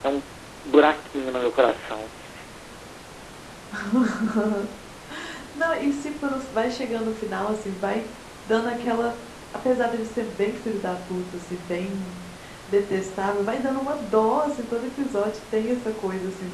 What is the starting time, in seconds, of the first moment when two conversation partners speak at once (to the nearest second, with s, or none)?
none